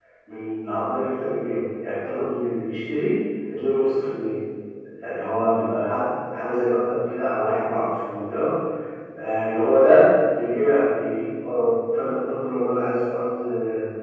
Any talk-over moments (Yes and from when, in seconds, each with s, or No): No